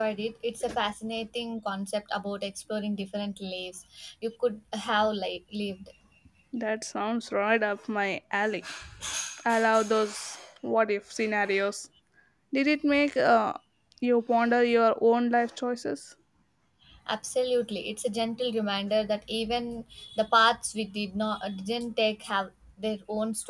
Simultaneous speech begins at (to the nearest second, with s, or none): none